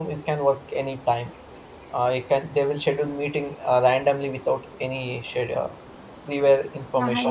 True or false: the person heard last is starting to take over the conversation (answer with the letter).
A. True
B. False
A